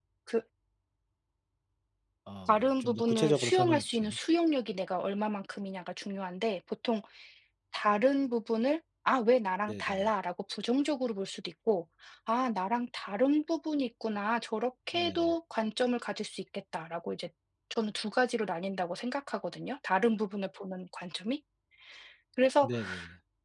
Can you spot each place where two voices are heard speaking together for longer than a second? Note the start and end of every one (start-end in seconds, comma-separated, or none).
2.5-4.2